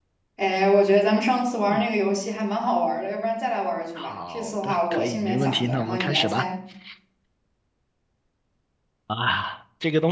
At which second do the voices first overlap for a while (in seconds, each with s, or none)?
4.0 s